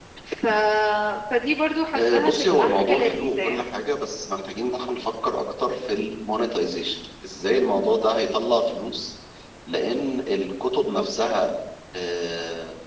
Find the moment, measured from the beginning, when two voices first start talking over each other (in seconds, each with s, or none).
1.9 s